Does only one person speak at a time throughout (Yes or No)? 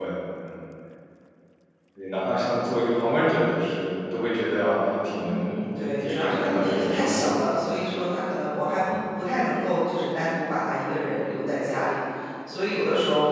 No